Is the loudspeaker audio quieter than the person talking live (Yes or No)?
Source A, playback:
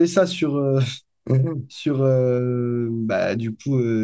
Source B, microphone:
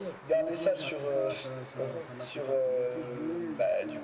No